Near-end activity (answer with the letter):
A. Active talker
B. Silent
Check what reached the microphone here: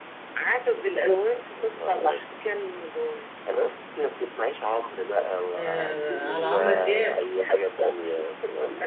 A